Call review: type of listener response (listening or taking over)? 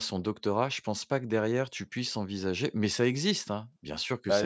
taking over